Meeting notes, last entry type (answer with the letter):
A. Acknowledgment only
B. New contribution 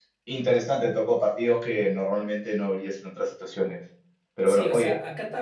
B